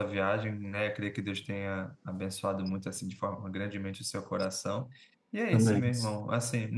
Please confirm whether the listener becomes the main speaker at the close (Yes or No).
No